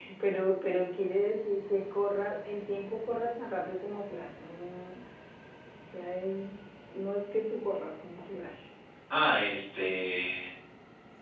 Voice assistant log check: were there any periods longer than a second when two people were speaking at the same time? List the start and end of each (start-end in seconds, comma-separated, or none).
none